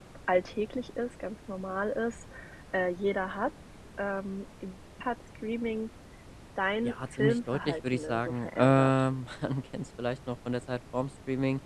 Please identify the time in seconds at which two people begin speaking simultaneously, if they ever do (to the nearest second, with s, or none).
7 s